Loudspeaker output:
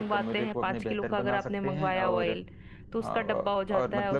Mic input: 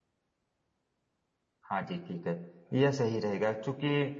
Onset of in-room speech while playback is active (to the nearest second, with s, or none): 2 s